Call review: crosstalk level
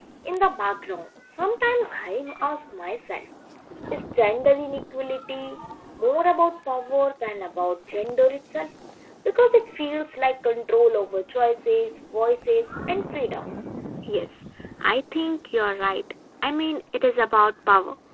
none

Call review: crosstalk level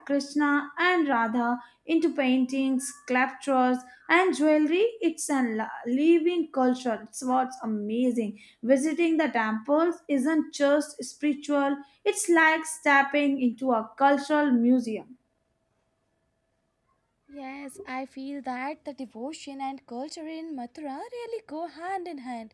none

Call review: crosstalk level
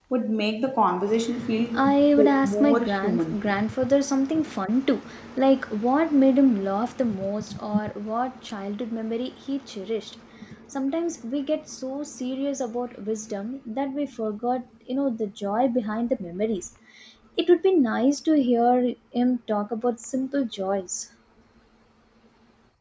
present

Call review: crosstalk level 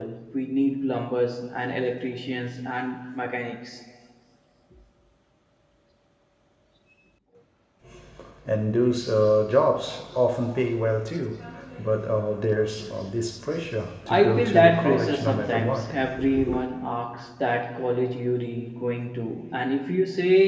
present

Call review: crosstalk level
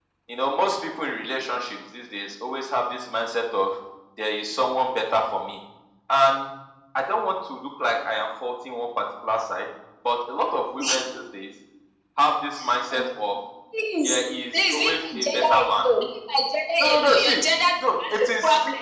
present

